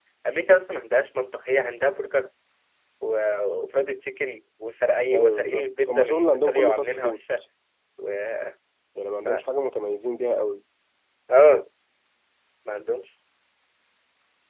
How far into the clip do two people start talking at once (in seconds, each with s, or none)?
5.1 s